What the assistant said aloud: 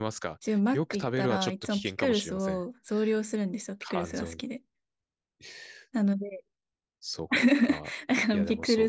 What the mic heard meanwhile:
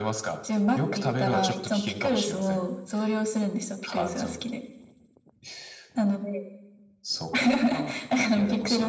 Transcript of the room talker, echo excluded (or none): none